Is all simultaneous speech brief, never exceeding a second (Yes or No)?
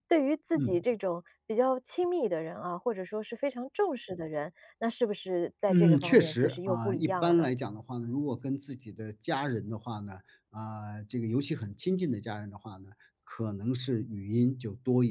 No